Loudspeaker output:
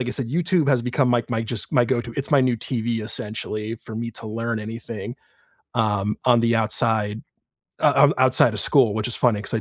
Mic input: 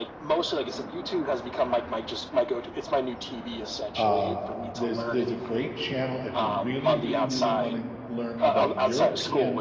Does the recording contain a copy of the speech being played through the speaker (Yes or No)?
Yes